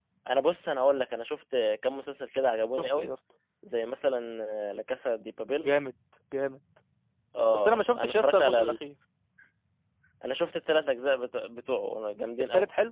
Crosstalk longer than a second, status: present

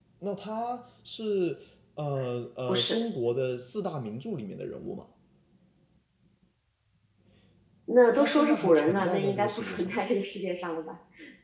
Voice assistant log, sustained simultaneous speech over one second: present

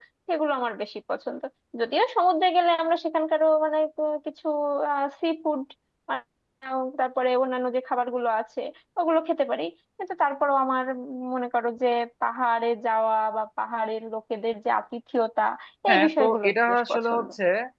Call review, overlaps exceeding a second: present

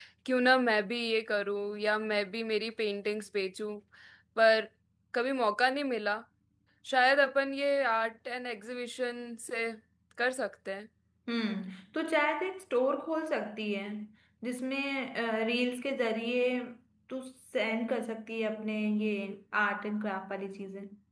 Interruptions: none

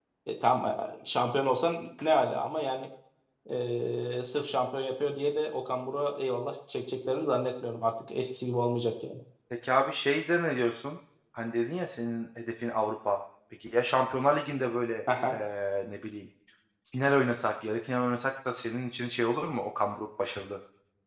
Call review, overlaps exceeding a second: none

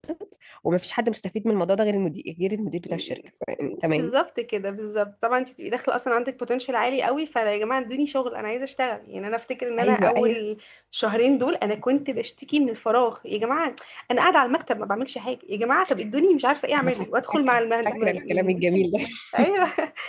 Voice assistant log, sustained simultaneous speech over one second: present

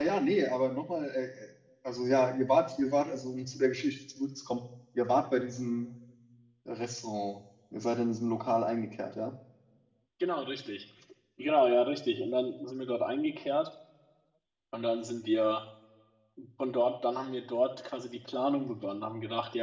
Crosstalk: none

